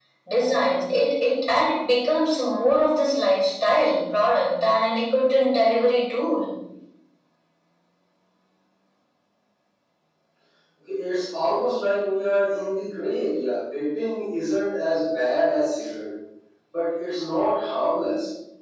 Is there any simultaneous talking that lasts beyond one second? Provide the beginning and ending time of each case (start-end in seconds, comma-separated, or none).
none